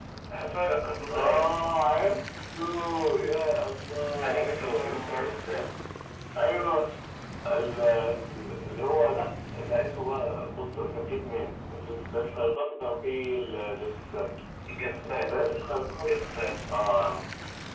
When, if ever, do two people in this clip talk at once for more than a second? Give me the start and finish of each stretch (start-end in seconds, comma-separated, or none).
4.2-5.7